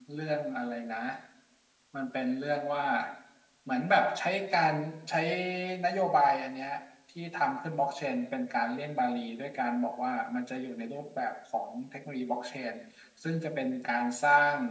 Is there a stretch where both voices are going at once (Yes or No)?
No